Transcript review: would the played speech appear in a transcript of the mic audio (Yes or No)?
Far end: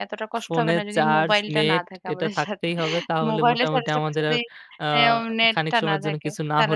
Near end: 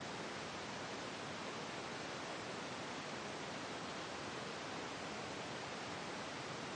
No